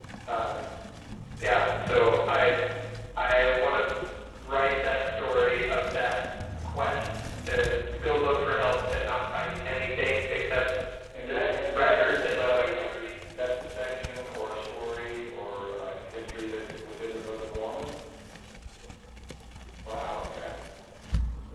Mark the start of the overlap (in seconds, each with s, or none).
11.3 s